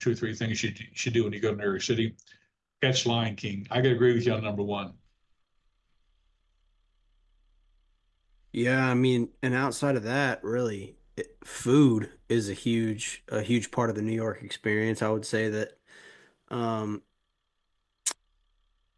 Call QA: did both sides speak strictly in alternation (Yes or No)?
Yes